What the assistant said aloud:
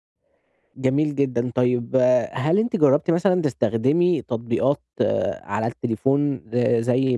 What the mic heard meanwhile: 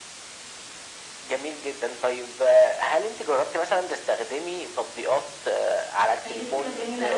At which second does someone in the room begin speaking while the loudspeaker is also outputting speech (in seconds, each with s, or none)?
6.2 s